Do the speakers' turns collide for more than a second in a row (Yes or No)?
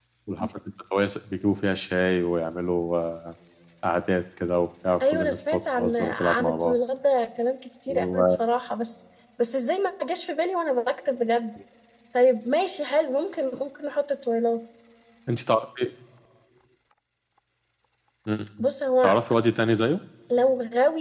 Yes